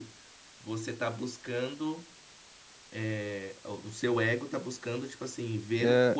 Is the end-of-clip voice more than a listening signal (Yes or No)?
No